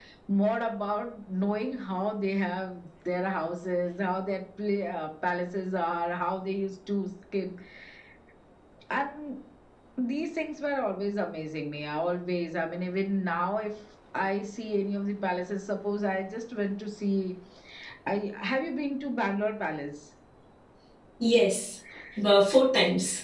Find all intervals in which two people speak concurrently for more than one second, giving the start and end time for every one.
none

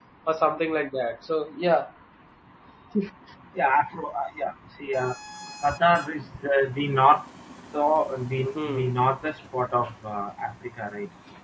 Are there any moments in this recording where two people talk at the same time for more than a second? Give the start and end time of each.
none

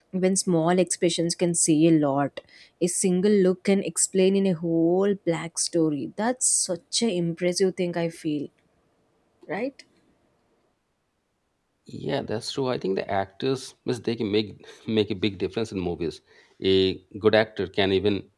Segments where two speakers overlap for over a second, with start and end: none

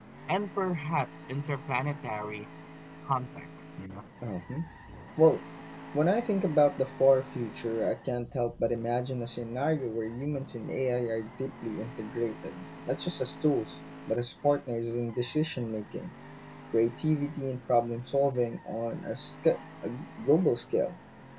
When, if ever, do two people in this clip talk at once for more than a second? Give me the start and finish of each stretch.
none

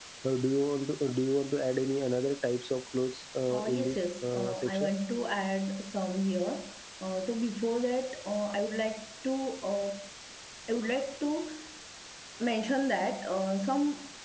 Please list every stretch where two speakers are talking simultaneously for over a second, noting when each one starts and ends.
3.5-4.9

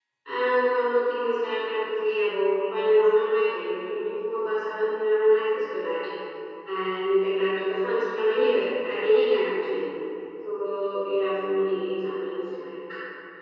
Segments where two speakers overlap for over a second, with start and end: none

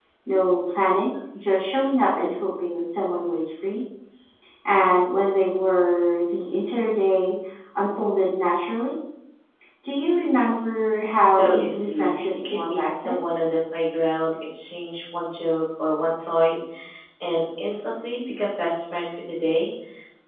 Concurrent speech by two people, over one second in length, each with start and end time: 11.2-13.2

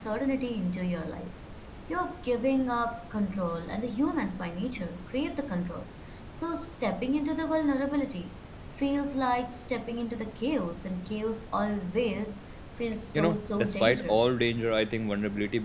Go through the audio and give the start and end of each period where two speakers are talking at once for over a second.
13.1-14.4

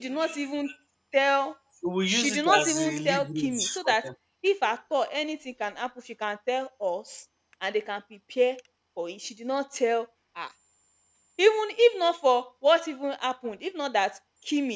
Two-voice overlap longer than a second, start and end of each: 2.1-4.0

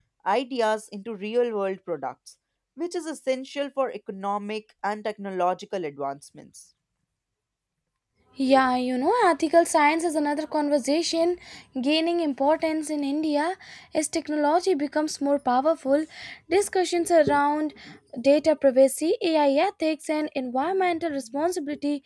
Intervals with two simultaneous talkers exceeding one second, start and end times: none

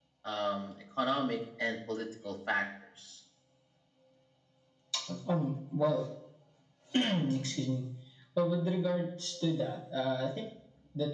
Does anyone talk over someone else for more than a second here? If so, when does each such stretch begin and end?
none

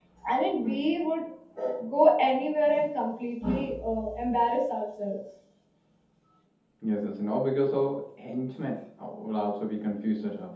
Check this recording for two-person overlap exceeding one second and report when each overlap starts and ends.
none

